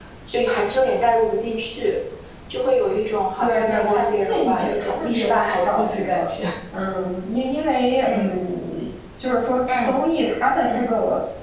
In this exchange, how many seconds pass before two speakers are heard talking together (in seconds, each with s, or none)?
3.4 s